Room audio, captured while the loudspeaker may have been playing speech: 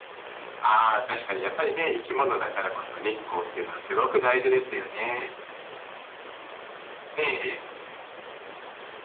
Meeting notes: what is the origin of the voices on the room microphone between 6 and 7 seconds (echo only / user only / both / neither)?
neither